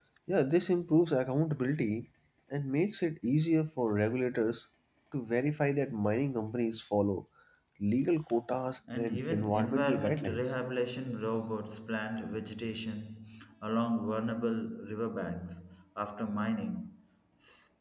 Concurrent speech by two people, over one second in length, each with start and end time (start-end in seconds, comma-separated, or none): 8.9-10.5